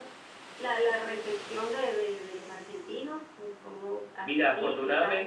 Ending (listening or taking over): taking over